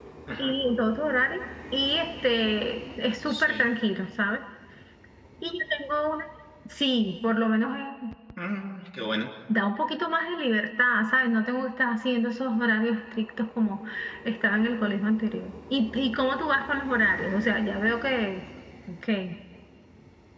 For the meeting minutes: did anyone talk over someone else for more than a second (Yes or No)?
No